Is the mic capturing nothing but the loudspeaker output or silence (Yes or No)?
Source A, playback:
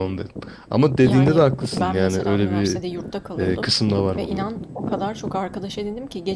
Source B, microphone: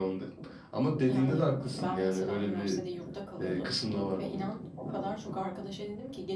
Yes